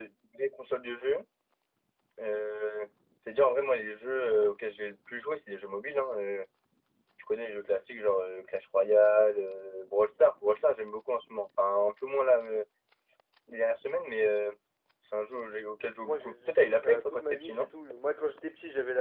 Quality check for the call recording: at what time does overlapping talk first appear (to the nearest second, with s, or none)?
16 s